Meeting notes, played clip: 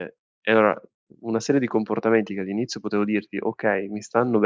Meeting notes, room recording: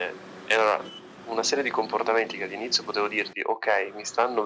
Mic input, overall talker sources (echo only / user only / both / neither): echo only